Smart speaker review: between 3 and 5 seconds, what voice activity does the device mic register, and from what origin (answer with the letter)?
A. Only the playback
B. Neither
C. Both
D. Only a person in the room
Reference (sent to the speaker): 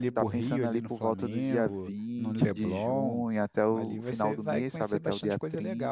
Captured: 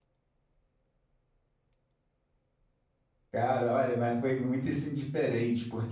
D